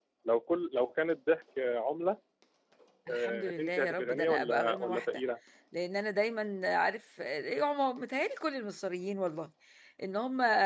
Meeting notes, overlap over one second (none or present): present